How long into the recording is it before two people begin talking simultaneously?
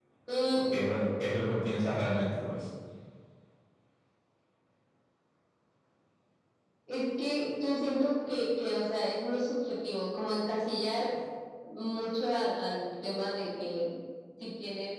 none

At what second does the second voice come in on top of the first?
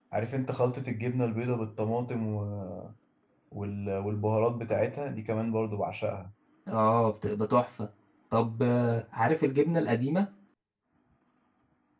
none

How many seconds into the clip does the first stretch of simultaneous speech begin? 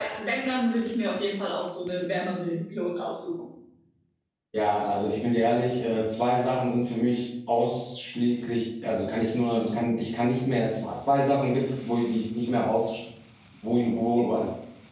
none

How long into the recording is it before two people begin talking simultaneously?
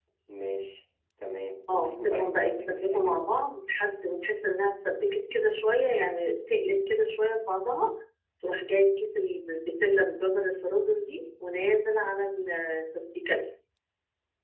2 s

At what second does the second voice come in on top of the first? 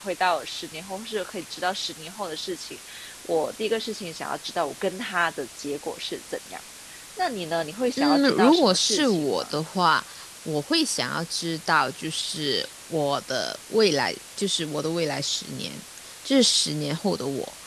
8 s

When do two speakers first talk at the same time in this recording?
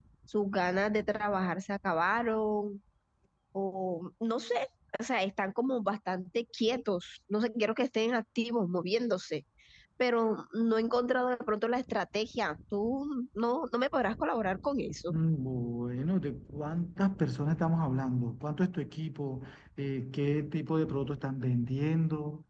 none

